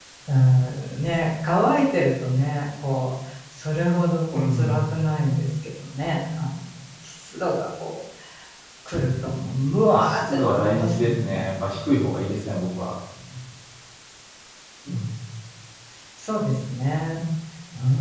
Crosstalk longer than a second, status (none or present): present